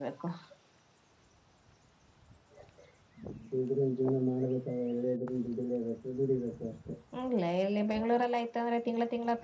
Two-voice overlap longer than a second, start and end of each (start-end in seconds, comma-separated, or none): none